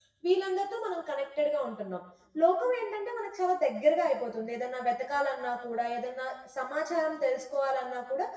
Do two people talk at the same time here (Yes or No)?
No